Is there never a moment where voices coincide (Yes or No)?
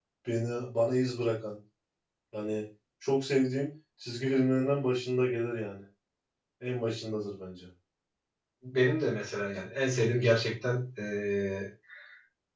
Yes